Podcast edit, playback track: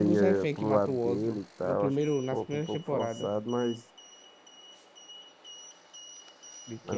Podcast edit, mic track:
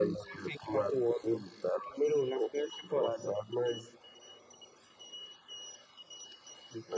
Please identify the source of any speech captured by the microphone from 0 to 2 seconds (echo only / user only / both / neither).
echo only